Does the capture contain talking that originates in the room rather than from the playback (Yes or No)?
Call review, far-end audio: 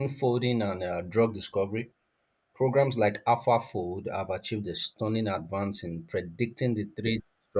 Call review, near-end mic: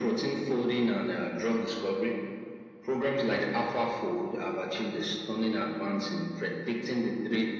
No